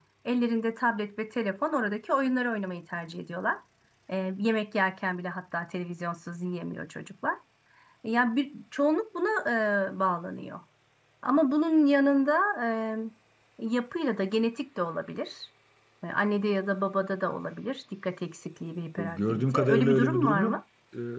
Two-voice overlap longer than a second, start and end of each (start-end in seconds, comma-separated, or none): 19.0-20.6